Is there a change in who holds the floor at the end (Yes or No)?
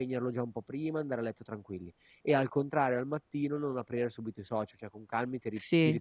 No